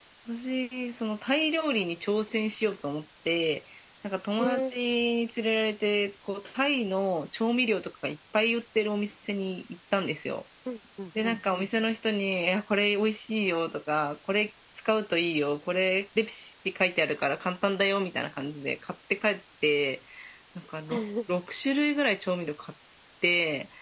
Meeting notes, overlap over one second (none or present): none